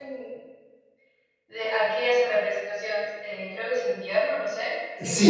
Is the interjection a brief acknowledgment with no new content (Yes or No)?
No